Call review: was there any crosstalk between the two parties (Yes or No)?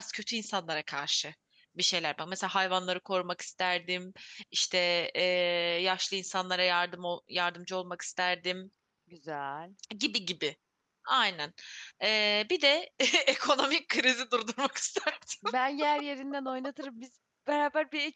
No